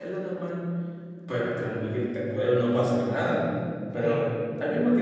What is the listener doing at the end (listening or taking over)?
listening